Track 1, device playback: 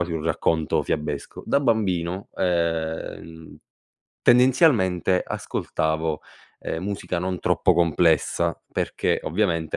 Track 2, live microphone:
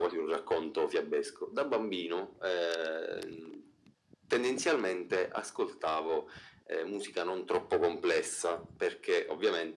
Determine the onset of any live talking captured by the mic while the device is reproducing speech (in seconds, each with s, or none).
none